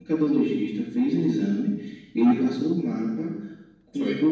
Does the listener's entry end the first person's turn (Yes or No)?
No